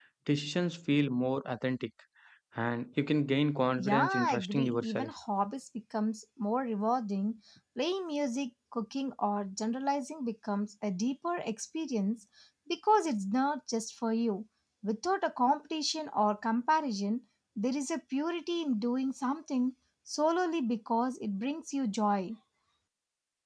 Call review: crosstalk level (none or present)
present